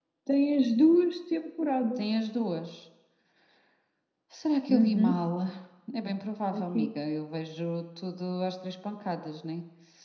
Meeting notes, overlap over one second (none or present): none